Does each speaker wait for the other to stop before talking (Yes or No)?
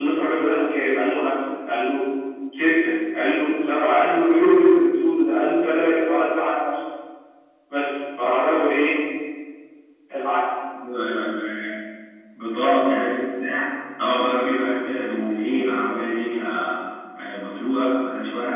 Yes